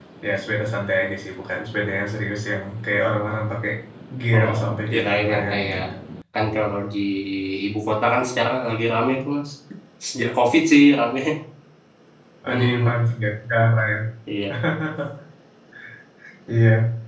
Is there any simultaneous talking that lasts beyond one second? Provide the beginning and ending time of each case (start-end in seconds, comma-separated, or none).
4.4-5.8